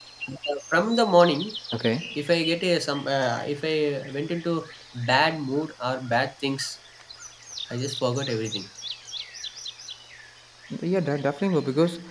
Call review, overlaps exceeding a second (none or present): none